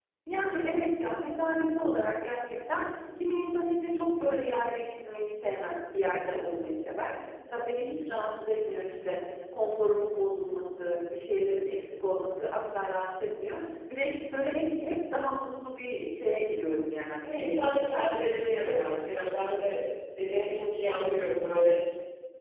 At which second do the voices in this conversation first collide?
17 s

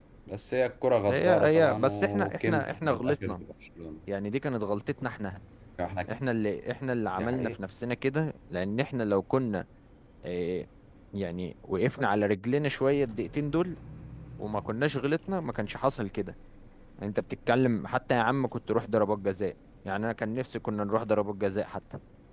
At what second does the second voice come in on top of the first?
1 s

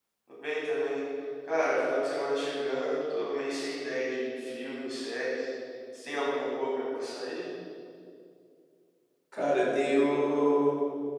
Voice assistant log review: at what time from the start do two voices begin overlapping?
none

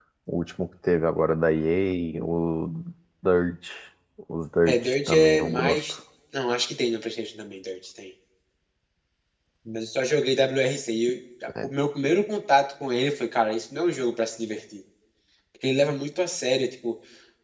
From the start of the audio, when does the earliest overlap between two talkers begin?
5 s

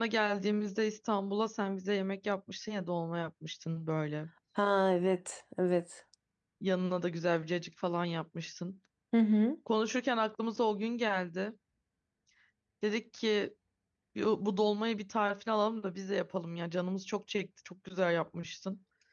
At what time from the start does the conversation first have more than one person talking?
none

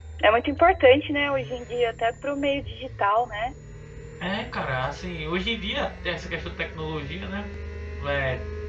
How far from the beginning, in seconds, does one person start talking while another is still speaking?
none

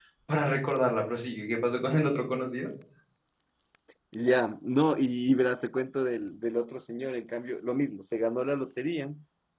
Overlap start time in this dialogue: none

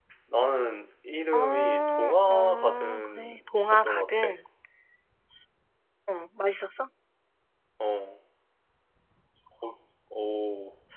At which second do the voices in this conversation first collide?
1 s

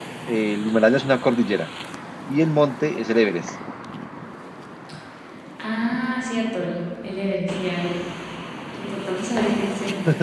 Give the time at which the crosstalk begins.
none

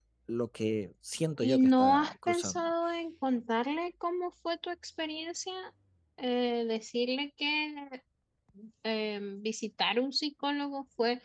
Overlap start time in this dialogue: 1 s

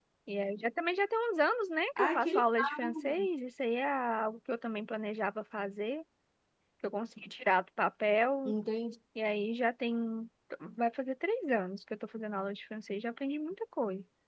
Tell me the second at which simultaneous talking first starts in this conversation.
2 s

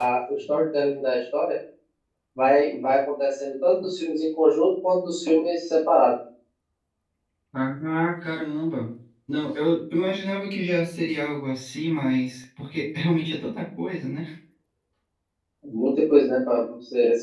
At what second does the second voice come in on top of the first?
none

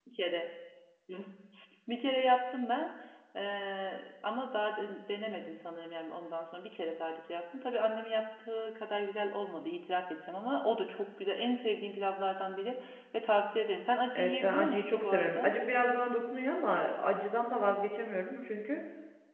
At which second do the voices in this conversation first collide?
14 s

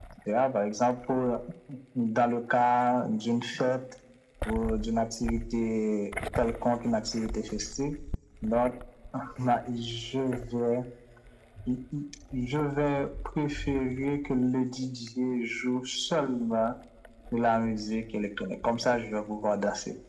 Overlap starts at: none

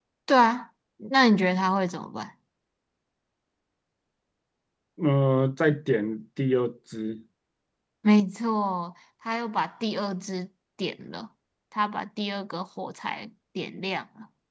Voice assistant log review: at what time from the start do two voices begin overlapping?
none

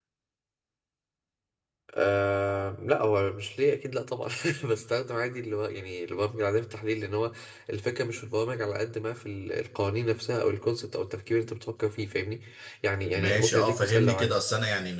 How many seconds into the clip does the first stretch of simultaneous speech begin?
13 s

